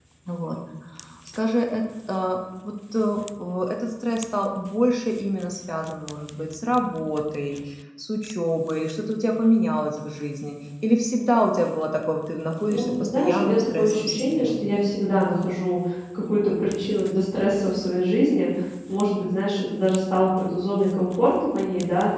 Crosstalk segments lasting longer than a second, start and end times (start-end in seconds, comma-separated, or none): 12.6-14.8